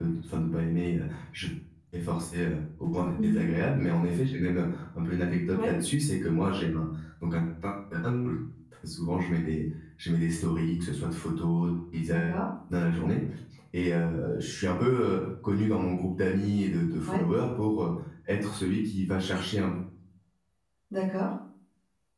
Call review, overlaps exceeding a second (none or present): none